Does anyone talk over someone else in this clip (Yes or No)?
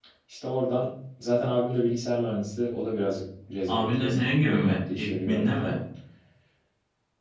Yes